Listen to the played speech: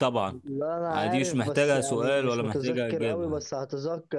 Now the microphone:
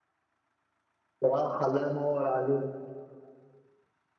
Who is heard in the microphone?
user only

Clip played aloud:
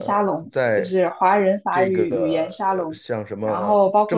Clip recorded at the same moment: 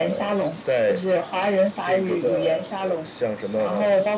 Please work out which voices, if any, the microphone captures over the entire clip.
echo only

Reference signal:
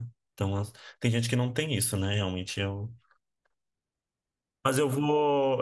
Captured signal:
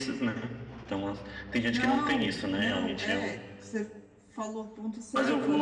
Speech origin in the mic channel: both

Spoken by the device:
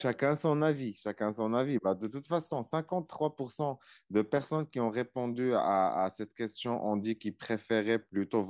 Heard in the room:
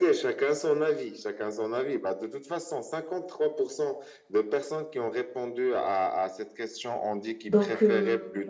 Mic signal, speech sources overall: both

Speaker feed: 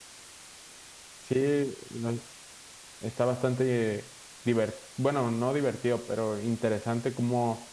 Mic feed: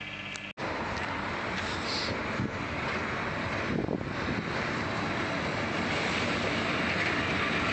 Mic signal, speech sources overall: neither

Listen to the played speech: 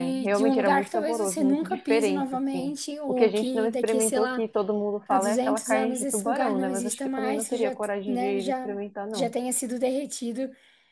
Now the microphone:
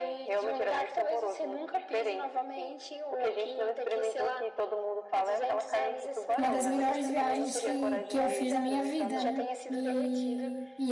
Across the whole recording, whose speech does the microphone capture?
both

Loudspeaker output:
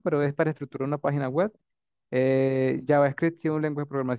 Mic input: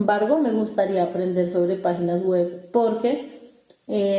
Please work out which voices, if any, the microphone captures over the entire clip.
user only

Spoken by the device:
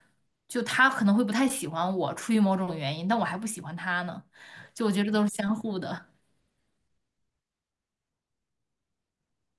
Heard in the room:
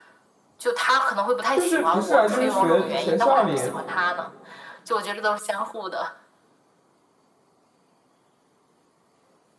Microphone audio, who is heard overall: both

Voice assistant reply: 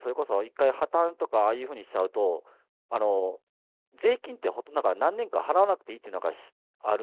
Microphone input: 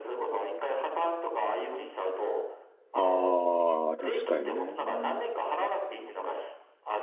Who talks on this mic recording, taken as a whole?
both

